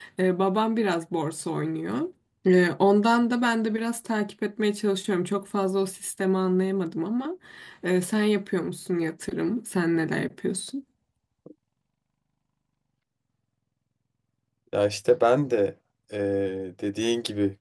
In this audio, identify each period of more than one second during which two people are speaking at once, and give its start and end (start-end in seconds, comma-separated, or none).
none